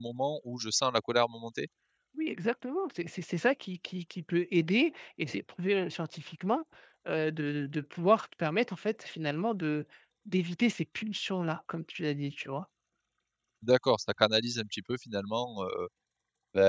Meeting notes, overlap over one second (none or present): none